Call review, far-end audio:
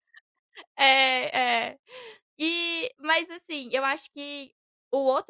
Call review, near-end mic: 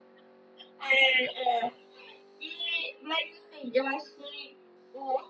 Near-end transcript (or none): none